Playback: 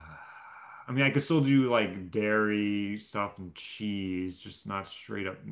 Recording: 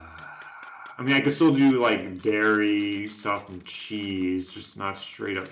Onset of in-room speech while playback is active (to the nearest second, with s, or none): none